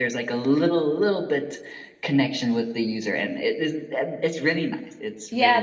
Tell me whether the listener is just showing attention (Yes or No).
No